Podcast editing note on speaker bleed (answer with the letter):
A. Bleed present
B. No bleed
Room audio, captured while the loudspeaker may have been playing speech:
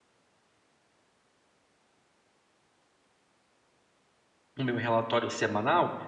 B